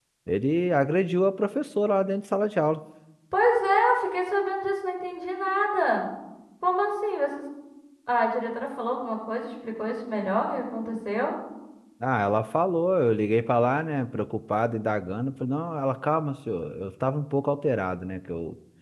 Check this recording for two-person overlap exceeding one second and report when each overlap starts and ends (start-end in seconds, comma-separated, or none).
none